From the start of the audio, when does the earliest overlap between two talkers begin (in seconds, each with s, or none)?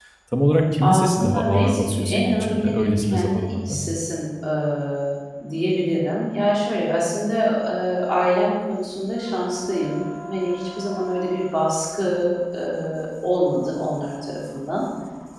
0.8 s